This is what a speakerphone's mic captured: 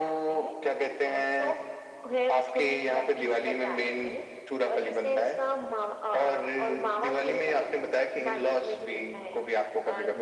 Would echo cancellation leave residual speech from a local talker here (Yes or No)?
No